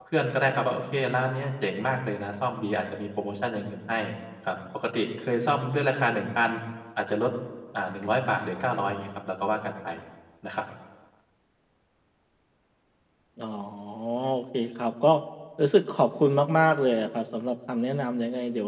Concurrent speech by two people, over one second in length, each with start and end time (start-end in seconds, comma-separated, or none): none